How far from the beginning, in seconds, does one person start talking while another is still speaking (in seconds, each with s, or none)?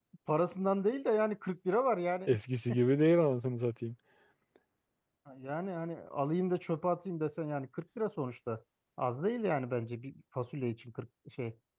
none